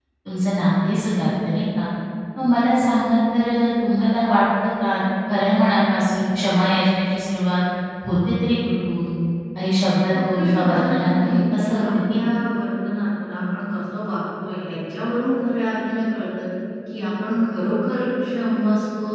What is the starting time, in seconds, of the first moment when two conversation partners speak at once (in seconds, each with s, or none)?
10.1 s